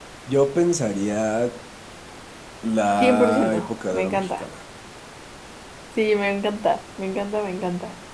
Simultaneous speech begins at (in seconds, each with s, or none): 3.0 s